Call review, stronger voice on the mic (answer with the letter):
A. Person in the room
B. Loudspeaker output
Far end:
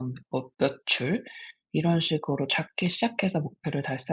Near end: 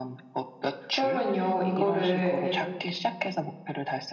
A